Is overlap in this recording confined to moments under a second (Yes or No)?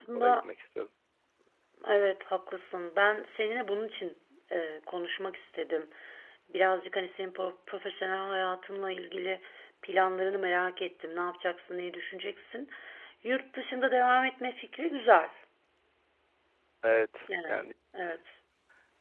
Yes